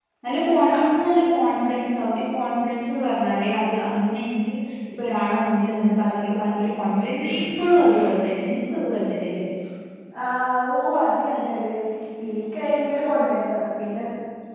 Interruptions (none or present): none